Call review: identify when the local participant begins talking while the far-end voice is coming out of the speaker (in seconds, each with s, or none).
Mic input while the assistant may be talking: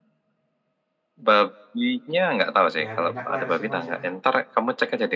2.8 s